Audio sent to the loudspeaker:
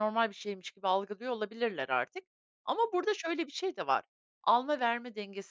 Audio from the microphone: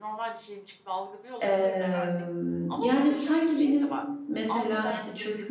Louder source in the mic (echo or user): user